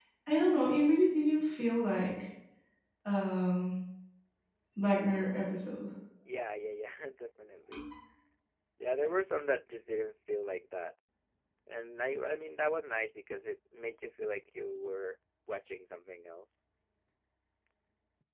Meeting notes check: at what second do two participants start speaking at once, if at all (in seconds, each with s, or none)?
none